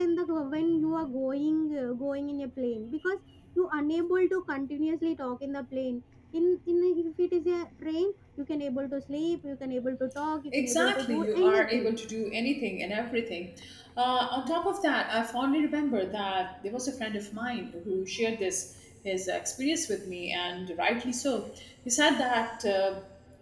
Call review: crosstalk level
present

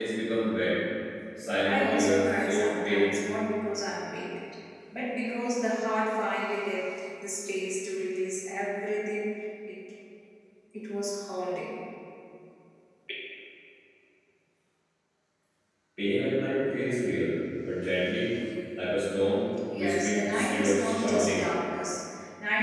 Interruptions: present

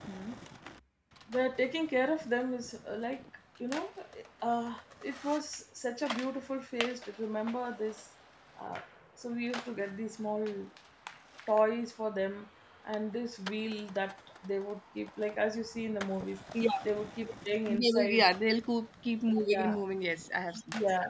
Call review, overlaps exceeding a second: none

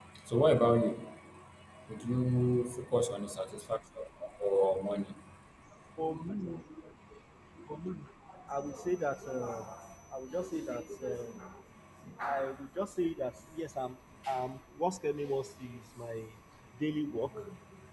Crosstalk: none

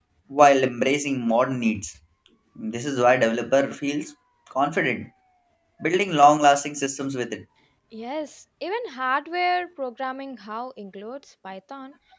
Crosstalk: none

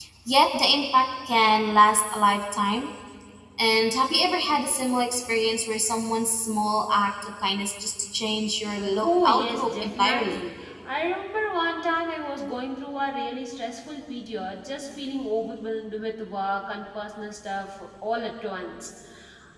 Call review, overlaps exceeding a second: present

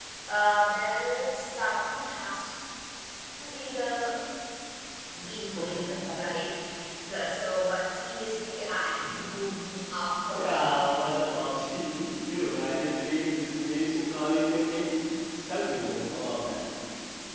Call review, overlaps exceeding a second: none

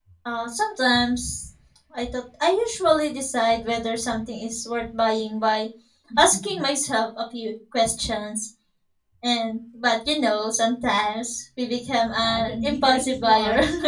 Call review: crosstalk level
present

